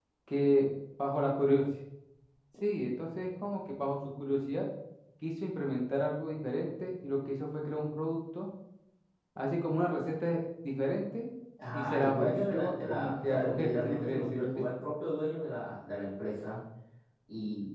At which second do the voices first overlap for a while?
11.7 s

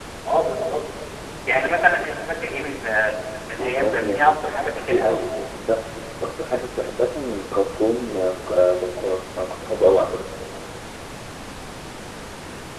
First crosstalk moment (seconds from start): 3.6 s

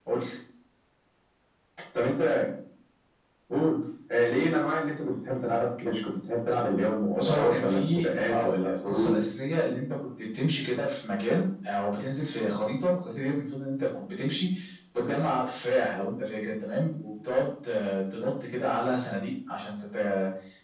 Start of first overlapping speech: 7.1 s

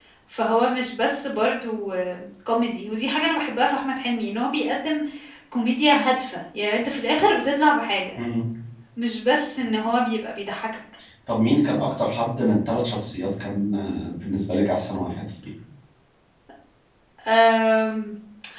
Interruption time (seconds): none

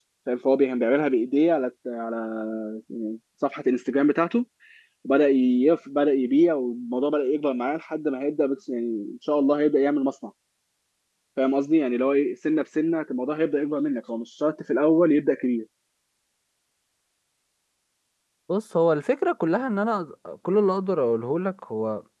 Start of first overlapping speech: none

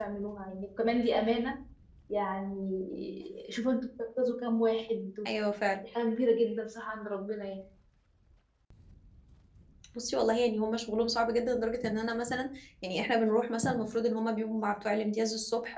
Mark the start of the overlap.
none

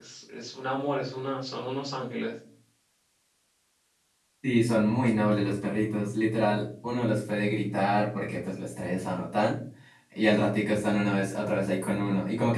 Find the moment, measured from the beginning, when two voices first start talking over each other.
none

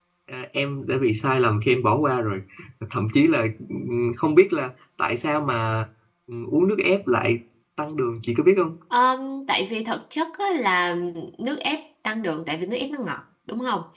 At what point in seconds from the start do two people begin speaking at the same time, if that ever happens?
none

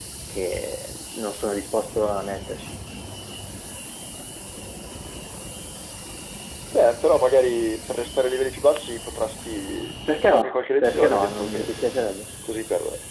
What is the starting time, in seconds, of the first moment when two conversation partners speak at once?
10.1 s

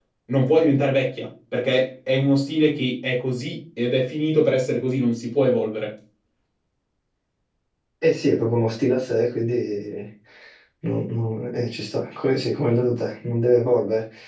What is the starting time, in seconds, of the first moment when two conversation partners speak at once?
none

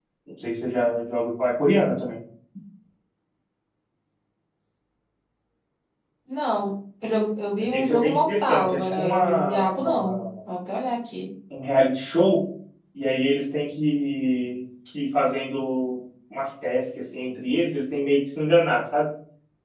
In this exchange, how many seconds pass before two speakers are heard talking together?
7.6 s

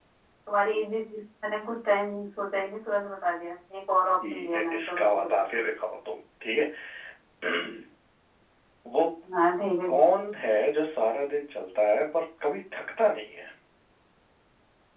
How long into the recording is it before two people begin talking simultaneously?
4.2 s

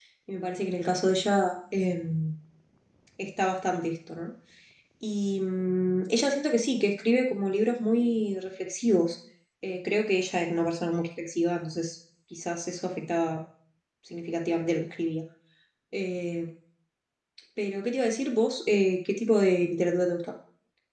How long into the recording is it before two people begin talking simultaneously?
none

